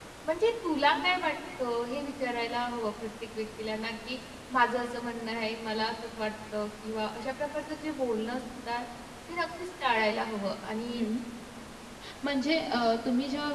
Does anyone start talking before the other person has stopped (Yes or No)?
No